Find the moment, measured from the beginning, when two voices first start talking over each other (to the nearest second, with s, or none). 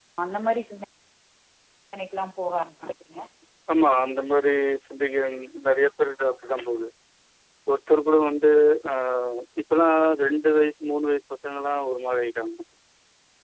none